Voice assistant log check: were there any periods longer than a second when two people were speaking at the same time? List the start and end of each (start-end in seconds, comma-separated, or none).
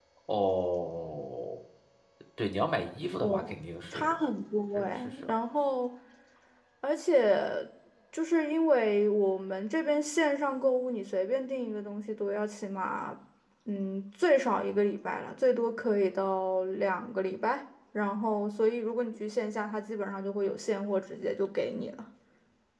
none